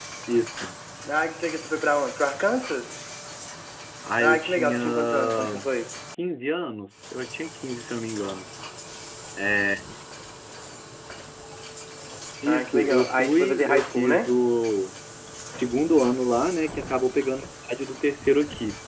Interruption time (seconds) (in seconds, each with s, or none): 4.2 s